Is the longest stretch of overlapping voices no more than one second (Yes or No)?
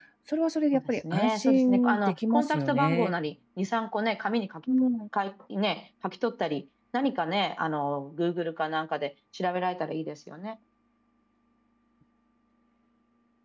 No